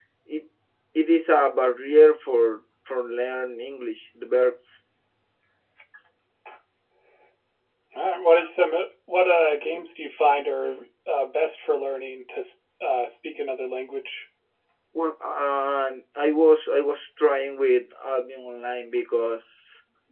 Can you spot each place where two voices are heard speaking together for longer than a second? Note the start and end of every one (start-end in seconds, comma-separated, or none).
none